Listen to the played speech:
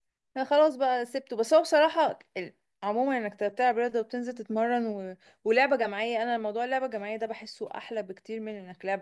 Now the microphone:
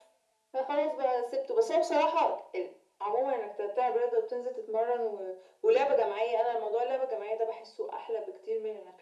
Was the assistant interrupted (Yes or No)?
No